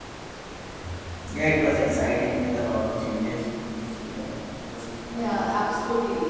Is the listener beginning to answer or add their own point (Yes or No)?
Yes